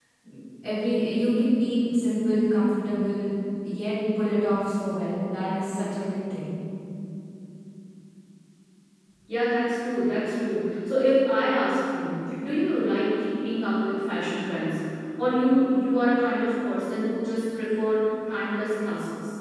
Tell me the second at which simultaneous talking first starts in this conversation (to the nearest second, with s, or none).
none